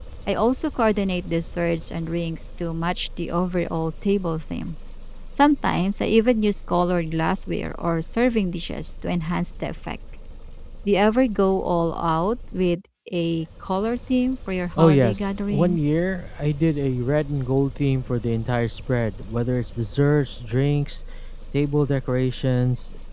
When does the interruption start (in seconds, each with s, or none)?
14.8 s